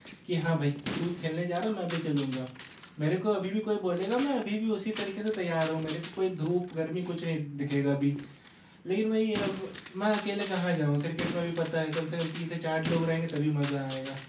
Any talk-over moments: No

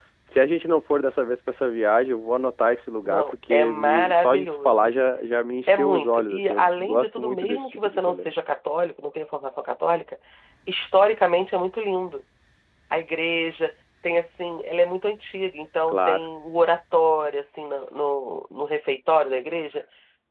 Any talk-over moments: Yes, from 3.0 s

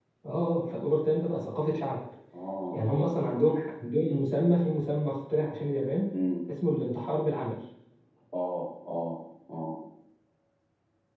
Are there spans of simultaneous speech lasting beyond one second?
No

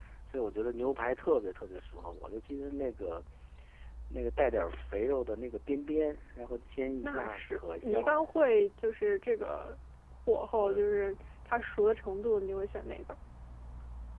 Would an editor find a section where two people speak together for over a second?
Yes, from 7.0 s

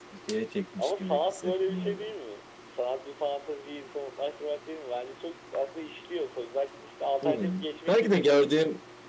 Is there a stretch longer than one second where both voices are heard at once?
Yes, from 0.8 s

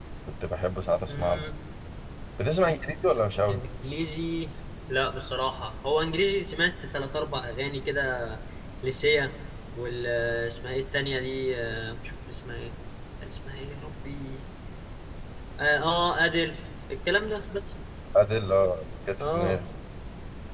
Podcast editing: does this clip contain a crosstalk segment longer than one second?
No

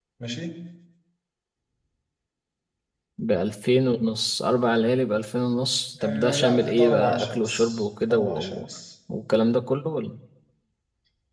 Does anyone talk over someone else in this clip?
Yes, from 6.0 s

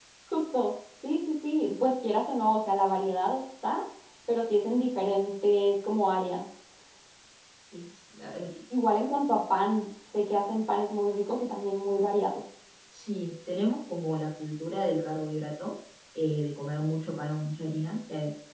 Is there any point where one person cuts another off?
No

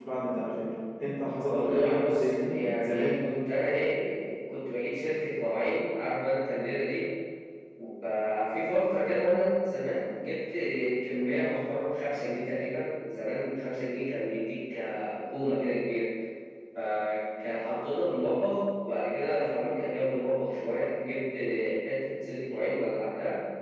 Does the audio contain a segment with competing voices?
Yes, from 1.5 s

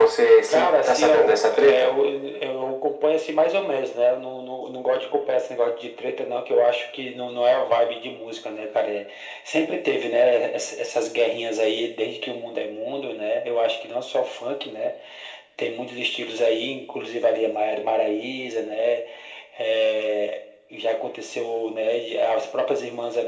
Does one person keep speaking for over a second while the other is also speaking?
Yes, from 0.5 s

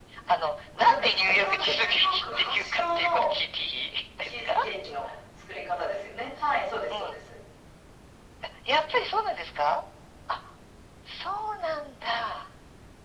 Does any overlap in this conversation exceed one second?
Yes, from 0.8 s

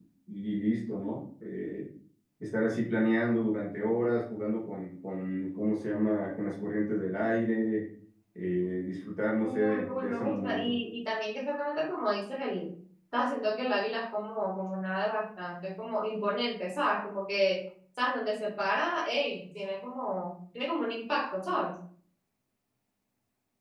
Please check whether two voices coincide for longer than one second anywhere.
Yes, from 9.4 s

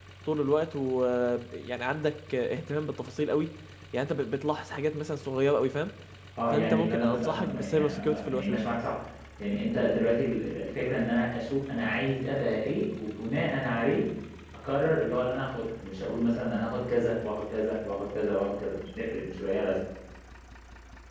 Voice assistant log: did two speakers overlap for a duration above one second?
Yes, from 6.5 s

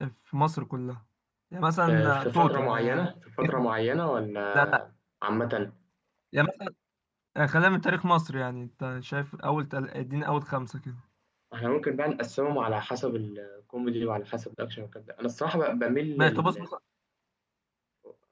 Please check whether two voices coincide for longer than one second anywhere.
Yes, from 1.8 s

